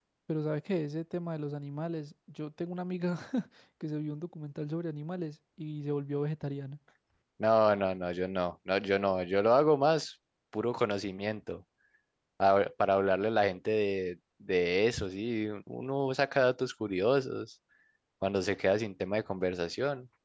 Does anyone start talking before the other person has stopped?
No

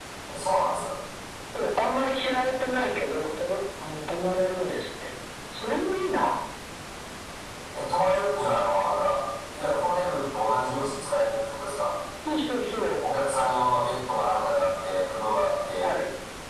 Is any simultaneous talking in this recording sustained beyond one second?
No

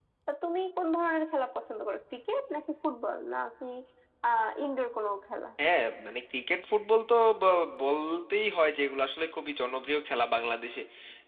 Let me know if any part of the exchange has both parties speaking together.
No

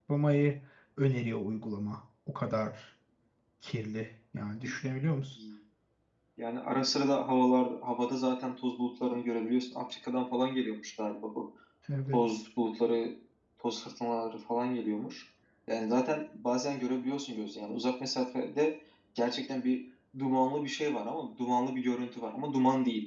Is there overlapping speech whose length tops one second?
No

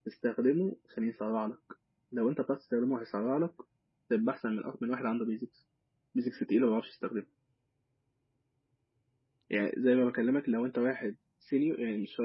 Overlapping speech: No

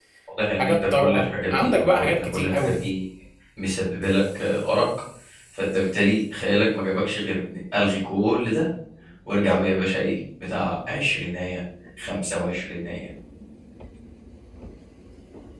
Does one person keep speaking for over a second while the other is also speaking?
Yes, from 0.6 s

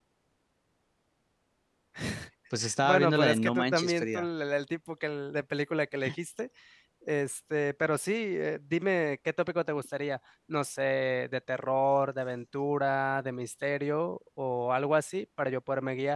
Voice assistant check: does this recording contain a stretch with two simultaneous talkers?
Yes, from 2.8 s

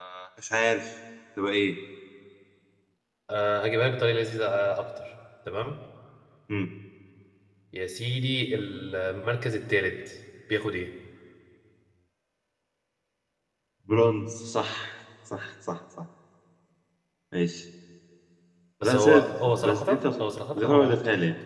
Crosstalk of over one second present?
Yes, from 18.8 s

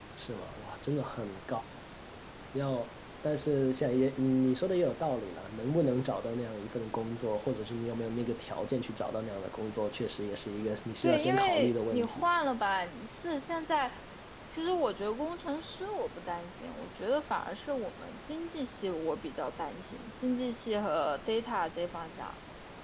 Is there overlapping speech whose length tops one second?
Yes, from 11.0 s

